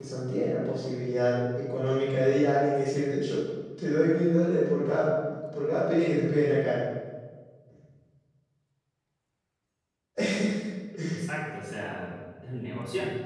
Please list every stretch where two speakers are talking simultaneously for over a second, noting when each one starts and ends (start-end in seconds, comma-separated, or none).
none